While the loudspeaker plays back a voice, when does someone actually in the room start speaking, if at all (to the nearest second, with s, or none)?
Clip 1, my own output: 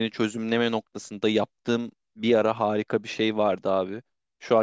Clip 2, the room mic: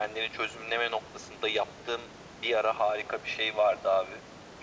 none